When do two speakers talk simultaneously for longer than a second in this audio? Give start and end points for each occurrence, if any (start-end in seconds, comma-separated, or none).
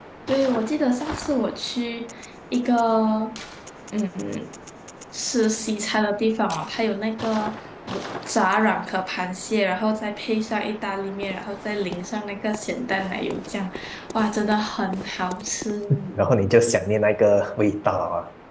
none